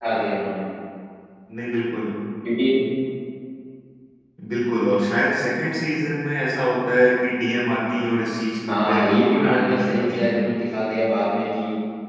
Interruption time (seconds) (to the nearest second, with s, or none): 9 s